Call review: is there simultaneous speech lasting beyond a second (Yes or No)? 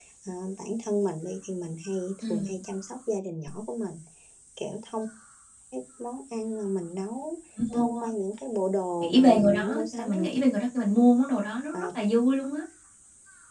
Yes